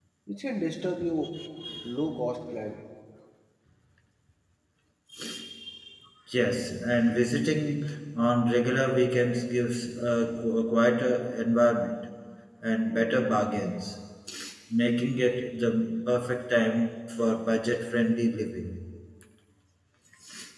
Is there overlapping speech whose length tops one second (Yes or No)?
No